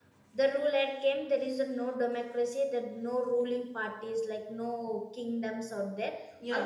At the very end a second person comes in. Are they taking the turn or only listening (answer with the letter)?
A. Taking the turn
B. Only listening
B